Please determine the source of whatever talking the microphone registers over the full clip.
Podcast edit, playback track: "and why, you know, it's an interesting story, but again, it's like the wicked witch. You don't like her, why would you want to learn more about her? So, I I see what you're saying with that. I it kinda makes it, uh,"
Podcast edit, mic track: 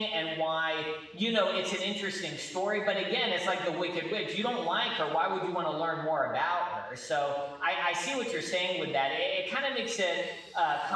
echo only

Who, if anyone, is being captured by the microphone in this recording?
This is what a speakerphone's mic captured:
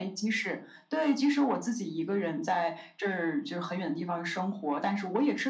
echo only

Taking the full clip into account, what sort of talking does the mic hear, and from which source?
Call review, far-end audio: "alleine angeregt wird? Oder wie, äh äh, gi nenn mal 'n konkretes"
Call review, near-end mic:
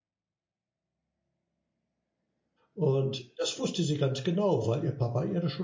user only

